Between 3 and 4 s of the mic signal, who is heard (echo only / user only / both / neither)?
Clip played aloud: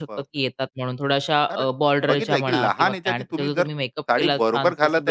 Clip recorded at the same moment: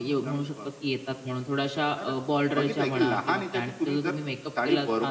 echo only